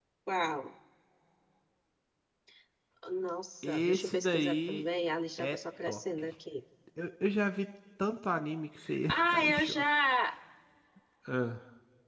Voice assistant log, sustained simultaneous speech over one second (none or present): present